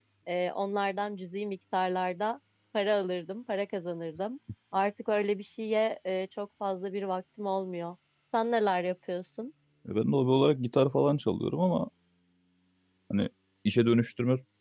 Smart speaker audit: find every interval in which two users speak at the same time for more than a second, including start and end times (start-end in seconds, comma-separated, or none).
none